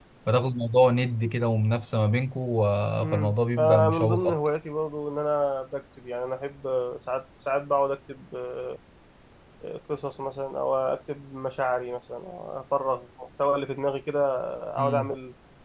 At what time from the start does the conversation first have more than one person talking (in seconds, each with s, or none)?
3.0 s